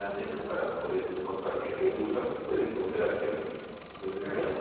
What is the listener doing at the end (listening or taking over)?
listening